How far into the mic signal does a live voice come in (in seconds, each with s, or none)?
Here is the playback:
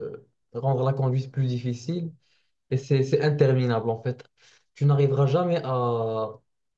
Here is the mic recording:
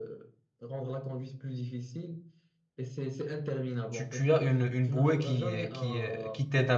3.9 s